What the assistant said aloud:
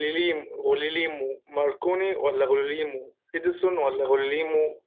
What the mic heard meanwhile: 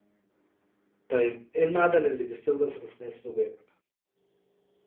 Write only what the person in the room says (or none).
طيب ايه المعدن اللي بيستخدم في تصنيع الزجاج